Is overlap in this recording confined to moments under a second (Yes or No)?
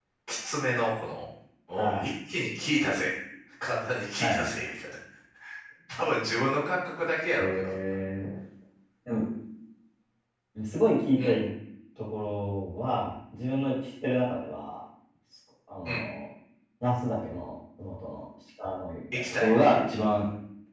Yes